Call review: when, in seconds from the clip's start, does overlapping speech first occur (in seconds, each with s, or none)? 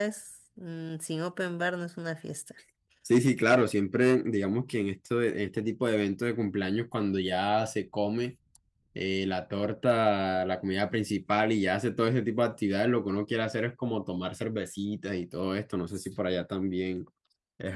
none